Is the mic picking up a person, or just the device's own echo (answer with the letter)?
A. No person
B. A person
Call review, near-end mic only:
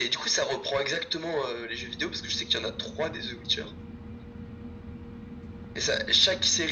A